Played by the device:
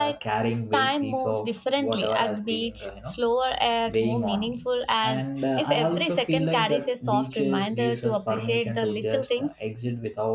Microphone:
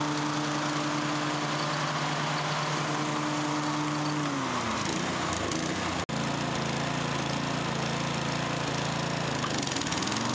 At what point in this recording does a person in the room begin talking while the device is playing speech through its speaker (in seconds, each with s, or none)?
none